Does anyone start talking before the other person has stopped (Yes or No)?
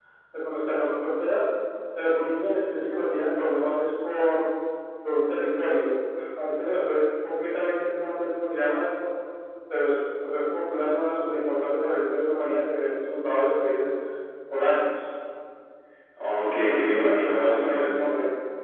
Yes